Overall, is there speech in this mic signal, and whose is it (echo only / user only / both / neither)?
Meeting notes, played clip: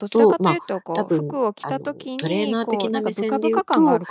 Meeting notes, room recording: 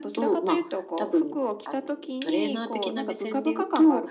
echo only